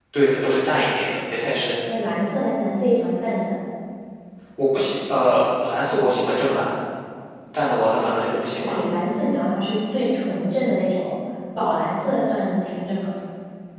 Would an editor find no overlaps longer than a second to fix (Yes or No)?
Yes